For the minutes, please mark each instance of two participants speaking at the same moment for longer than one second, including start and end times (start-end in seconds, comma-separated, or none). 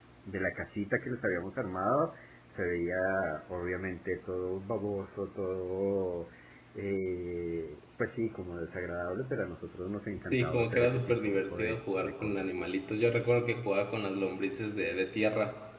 10.3-12.5